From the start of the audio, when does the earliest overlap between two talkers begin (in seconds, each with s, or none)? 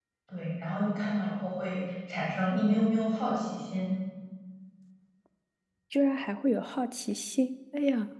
none